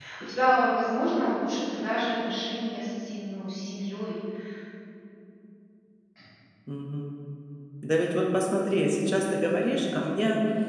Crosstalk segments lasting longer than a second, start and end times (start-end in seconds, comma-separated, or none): none